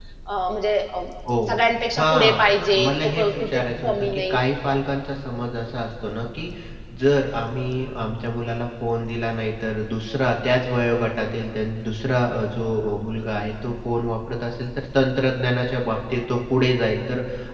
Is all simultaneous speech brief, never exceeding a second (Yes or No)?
No